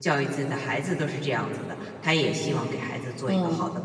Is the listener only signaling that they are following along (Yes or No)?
No